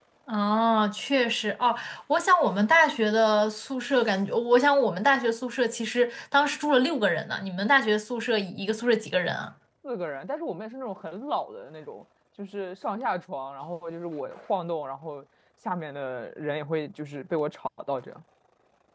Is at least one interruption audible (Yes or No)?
No